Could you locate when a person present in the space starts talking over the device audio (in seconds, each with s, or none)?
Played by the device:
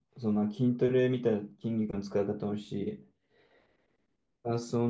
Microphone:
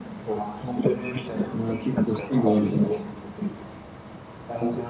1.5 s